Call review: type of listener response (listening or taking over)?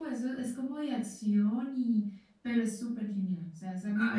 taking over